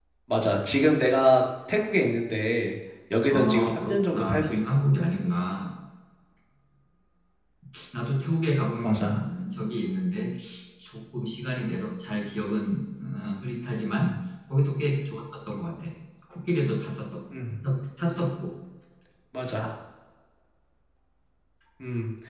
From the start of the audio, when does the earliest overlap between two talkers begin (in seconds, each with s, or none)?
3.3 s